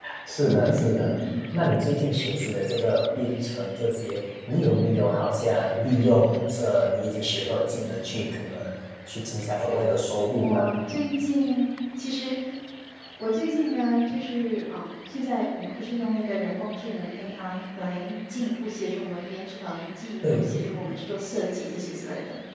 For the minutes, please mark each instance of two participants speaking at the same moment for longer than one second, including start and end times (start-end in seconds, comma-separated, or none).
none